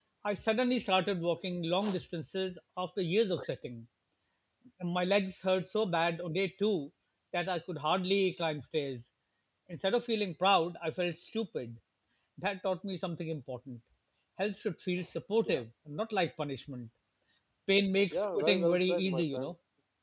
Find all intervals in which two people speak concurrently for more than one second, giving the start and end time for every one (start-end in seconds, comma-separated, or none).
18.1-19.5